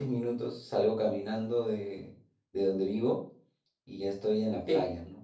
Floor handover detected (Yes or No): No